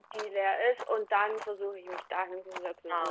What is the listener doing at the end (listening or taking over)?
taking over